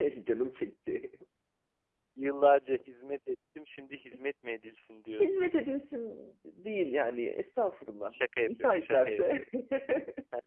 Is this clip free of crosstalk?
No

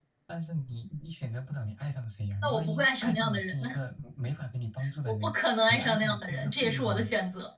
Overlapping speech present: Yes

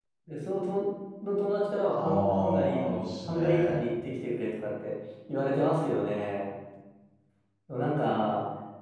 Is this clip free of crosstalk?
No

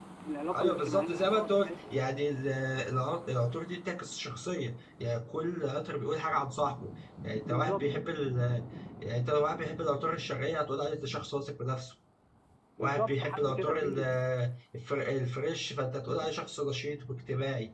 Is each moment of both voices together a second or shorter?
No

